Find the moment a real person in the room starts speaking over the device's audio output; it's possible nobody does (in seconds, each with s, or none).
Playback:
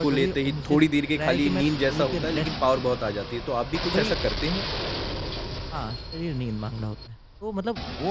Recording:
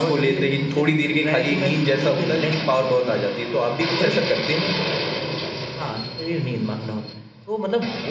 none